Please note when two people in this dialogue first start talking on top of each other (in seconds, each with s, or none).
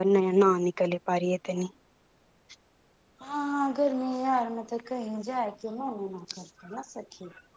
none